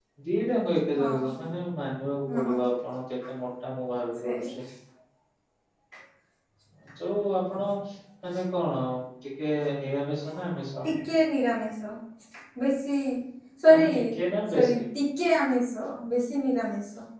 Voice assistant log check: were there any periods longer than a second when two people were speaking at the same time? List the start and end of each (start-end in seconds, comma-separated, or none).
none